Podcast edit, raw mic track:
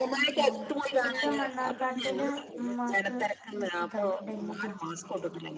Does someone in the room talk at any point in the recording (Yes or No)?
Yes